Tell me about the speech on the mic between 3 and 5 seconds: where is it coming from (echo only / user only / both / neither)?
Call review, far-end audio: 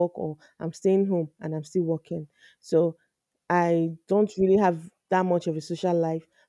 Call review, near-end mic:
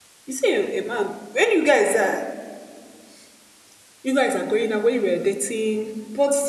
user only